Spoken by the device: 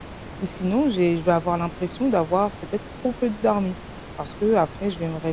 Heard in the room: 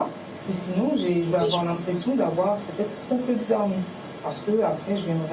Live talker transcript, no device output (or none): Oui, je